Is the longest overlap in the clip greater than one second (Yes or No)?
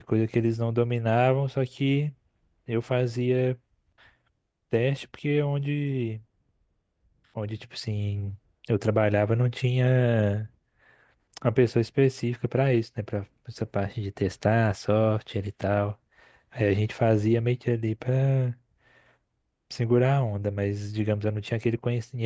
No